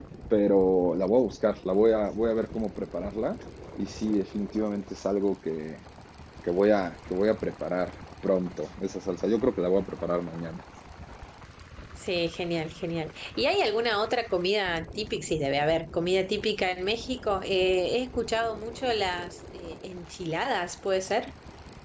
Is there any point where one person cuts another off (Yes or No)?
No